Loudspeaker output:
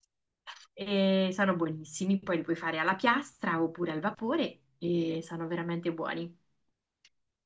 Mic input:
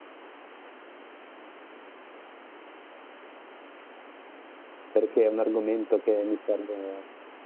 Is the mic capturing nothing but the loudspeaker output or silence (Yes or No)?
No